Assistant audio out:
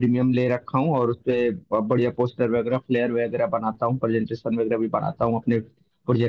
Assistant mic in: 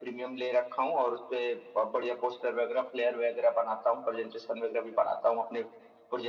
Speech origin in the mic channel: echo only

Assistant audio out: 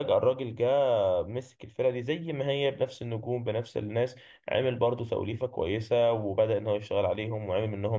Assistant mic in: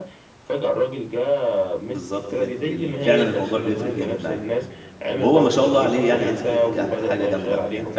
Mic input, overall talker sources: both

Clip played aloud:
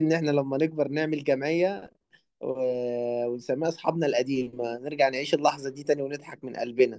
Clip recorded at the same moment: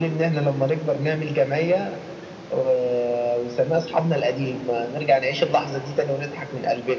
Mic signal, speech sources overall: echo only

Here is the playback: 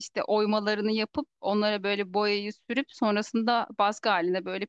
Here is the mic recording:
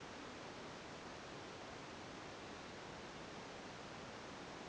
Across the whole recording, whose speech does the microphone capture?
neither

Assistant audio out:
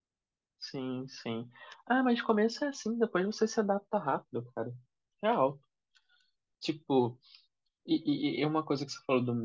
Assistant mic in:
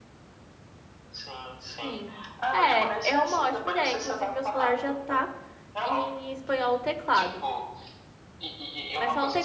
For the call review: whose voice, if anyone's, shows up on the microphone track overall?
both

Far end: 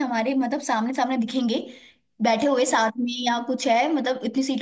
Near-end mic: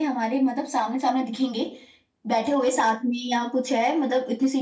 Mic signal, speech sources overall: echo only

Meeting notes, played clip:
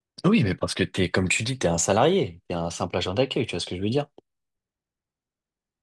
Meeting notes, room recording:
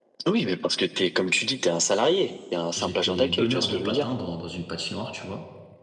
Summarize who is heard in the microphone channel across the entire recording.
both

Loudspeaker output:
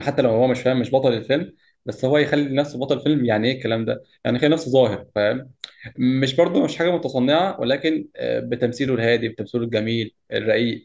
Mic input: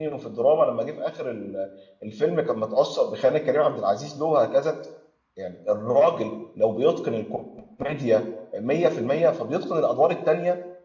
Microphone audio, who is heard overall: user only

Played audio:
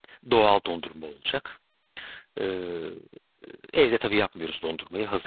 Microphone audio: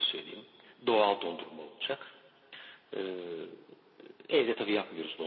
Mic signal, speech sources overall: echo only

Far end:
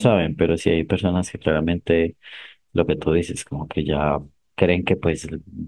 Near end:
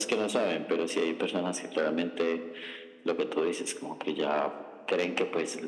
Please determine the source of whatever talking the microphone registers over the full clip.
echo only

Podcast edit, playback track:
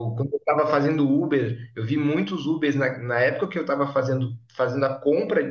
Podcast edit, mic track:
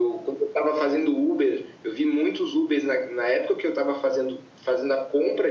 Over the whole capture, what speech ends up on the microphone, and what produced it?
echo only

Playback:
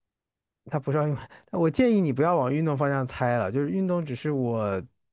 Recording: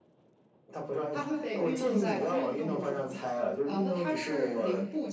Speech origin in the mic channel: both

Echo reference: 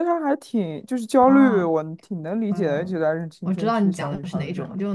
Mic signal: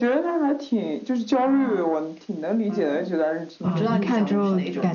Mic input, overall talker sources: both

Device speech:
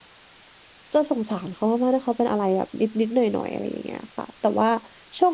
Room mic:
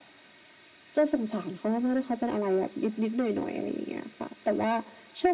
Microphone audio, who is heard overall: echo only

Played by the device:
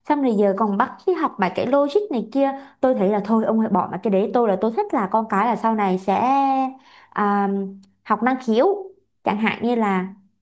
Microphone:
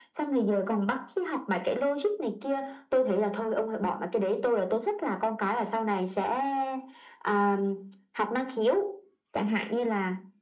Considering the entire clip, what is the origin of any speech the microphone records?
echo only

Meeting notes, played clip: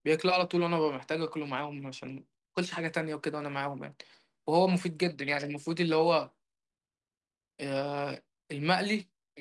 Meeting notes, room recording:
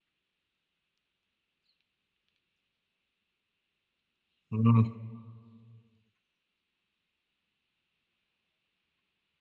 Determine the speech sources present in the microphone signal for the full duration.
user only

